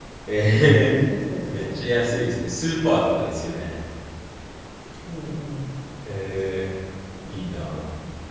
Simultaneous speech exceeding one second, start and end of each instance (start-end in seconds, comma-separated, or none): none